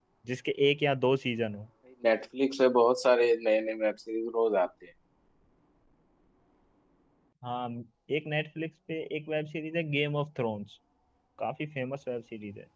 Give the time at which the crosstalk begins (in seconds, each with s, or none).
none